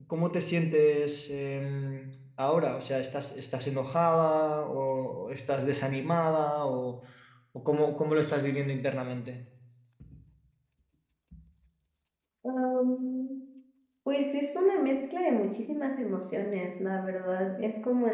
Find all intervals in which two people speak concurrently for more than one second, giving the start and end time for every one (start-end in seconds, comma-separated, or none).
none